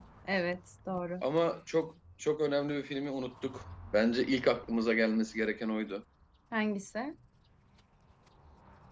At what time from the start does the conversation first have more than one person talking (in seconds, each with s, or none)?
none